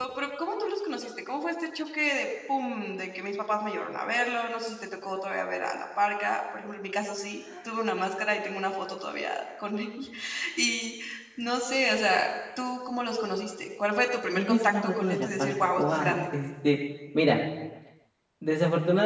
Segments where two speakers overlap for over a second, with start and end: 14.3-16.2

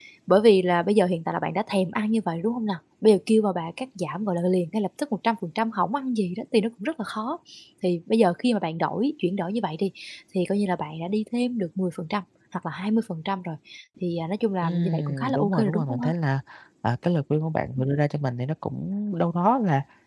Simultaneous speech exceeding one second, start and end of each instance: 14.6-16.1

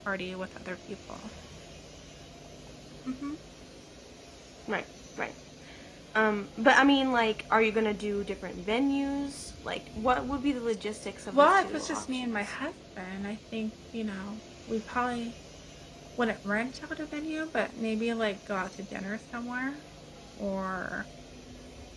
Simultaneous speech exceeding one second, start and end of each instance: 11.3-12.5

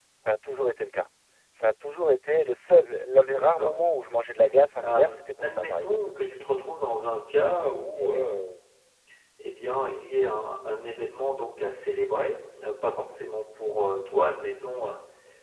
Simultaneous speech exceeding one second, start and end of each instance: 4.8-6.0

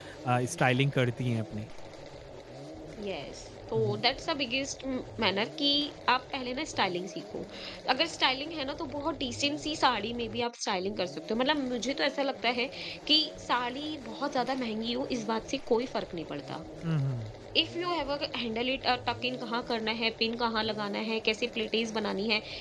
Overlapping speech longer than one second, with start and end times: none

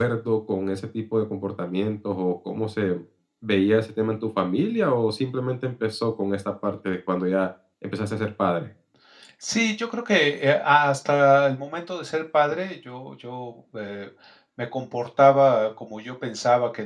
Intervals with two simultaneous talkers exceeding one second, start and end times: none

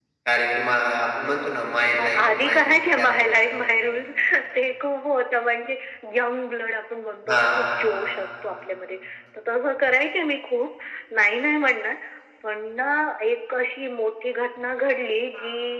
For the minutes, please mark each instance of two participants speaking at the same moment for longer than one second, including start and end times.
2.0-3.4

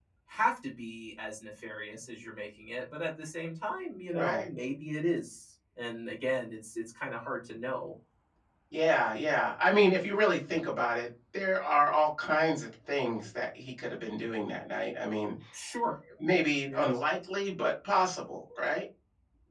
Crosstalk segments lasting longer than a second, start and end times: none

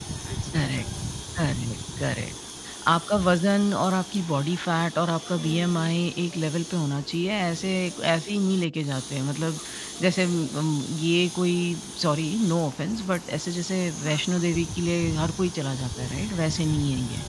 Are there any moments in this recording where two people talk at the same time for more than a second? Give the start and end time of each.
none

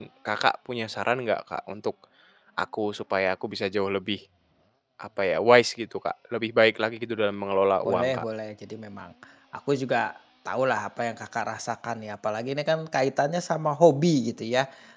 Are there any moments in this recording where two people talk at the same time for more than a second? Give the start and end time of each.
none

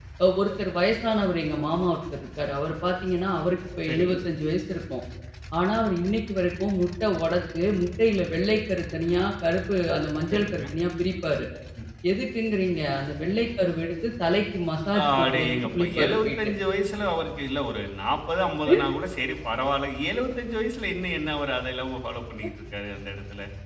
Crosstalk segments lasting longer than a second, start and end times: 15.0-16.5

